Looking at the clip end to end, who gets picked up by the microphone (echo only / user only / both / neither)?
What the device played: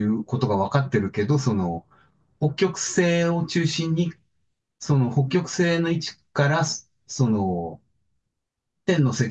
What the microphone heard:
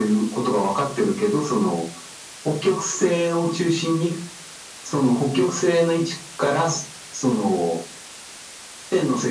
echo only